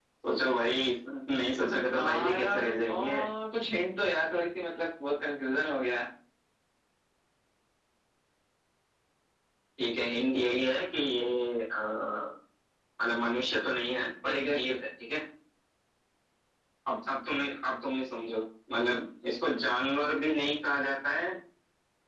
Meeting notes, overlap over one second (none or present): present